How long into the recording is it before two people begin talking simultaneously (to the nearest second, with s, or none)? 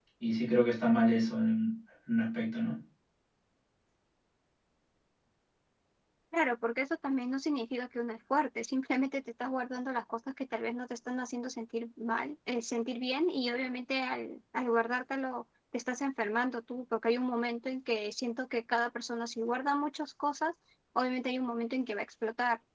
none